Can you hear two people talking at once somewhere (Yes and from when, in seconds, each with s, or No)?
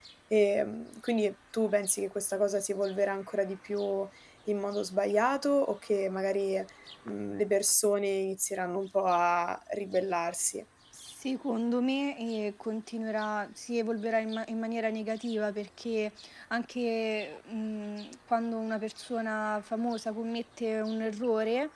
No